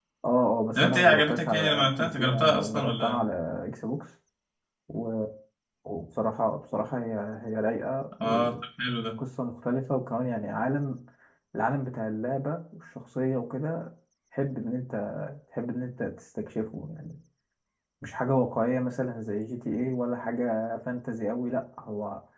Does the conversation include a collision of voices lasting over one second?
Yes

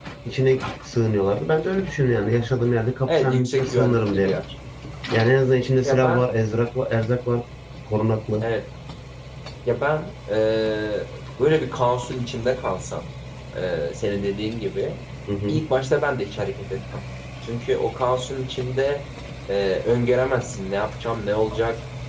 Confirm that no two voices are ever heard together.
No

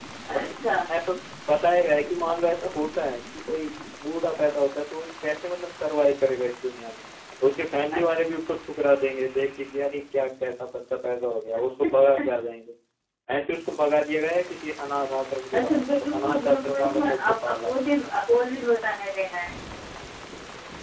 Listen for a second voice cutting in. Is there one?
Yes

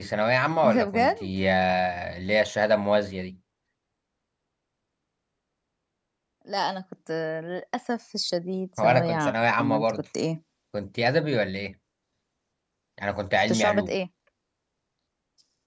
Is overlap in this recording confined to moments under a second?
No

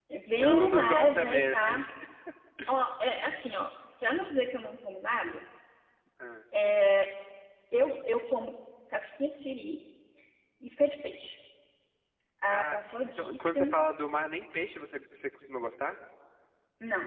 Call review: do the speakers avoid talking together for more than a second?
No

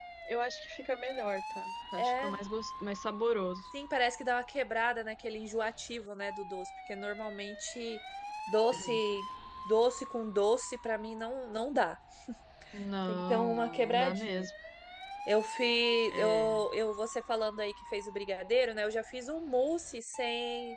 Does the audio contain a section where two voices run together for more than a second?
Yes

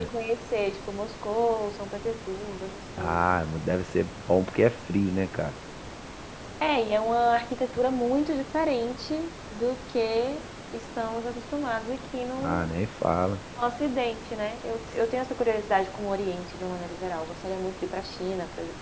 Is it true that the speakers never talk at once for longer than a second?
Yes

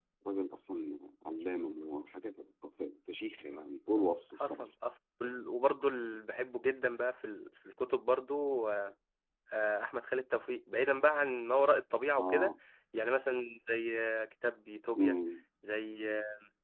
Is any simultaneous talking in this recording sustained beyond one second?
No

